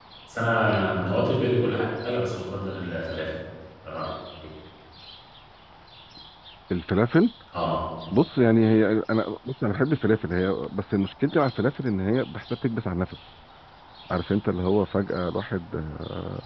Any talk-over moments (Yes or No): No